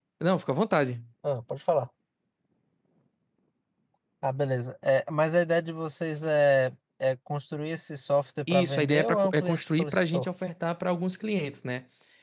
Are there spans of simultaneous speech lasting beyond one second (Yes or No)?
Yes